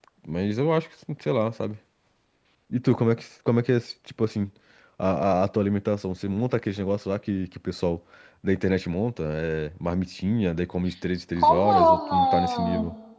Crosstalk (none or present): present